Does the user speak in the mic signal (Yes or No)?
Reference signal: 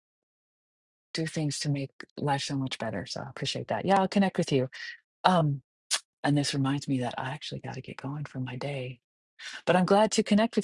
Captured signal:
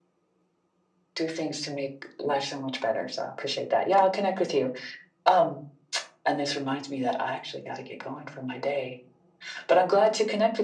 No